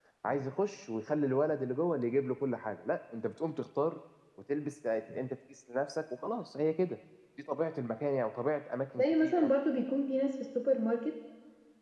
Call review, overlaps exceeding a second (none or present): none